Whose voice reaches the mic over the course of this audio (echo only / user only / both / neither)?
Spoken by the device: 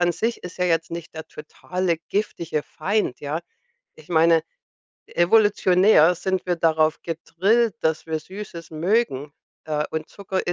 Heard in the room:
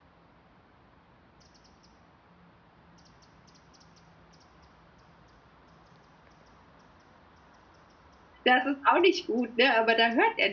user only